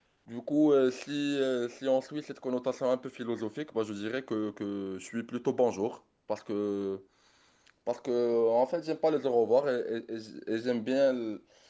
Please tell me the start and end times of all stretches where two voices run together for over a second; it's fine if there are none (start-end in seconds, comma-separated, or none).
none